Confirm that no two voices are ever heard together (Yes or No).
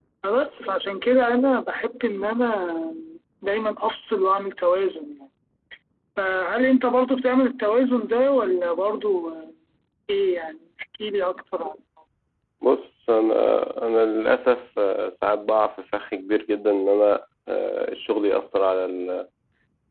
Yes